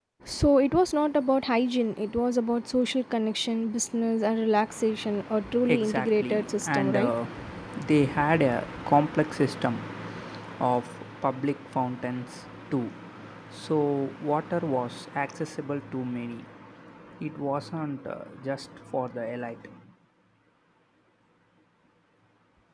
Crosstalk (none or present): present